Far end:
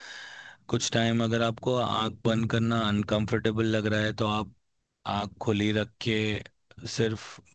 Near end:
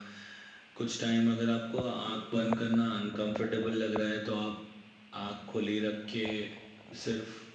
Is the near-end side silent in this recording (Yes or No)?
Yes